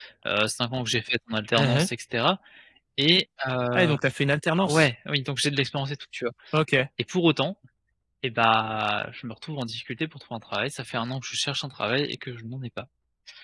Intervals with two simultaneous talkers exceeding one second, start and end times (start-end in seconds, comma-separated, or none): none